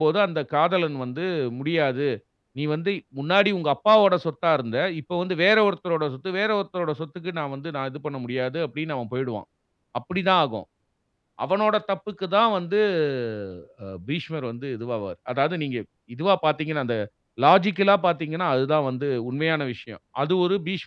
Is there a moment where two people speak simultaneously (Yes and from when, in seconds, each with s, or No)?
No